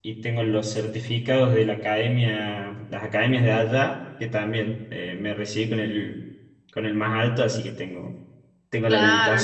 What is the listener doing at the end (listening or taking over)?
taking over